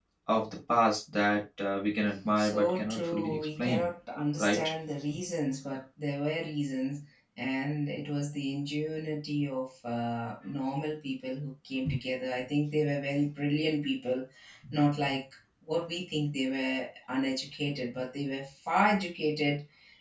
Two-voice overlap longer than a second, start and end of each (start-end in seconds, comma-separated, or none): 2.4-3.8